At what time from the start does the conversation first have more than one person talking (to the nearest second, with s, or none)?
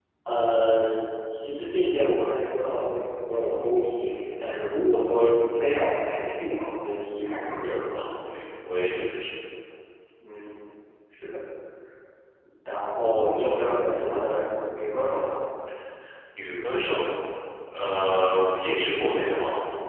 none